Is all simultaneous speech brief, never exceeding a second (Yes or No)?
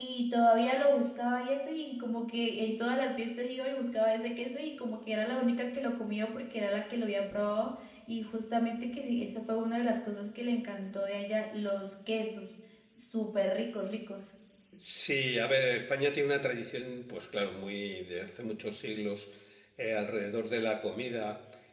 Yes